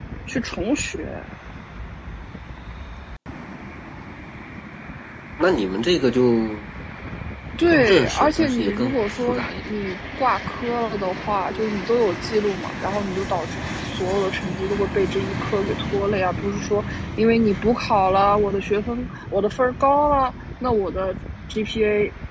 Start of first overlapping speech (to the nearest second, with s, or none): 8 s